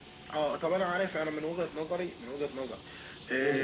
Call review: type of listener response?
listening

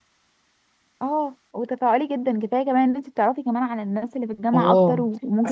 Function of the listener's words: taking over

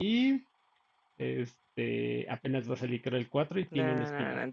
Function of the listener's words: taking over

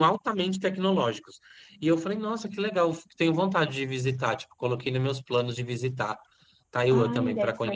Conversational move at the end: taking over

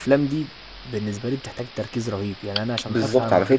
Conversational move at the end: taking over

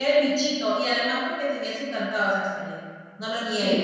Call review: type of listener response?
taking over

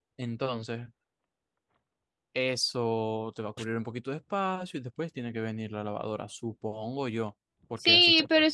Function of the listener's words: taking over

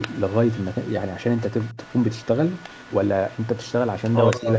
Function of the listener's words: taking over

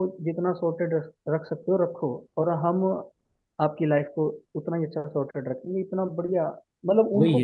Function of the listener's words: taking over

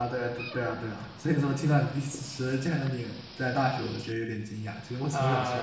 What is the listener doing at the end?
taking over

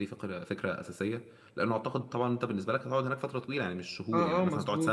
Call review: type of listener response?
taking over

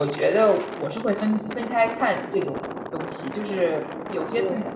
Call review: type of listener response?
listening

